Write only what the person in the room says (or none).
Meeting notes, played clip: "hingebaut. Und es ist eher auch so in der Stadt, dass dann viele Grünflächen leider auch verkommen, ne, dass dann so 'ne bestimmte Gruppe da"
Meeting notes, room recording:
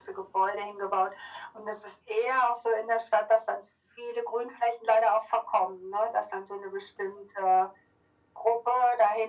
none